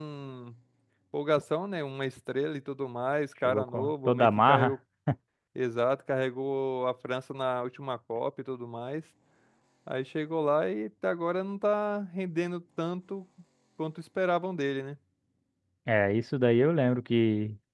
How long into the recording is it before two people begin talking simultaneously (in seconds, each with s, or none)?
3.5 s